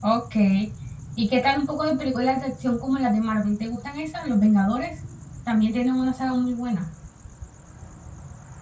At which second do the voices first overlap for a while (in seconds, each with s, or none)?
none